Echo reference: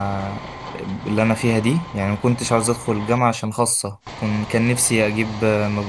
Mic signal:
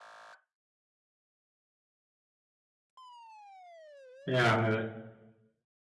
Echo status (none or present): none